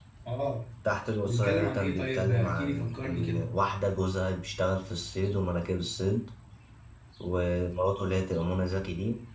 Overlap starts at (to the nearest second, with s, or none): 1 s